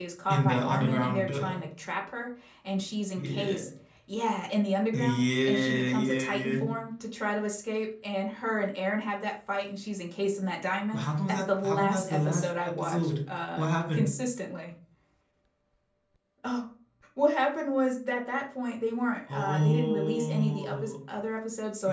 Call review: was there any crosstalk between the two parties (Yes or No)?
Yes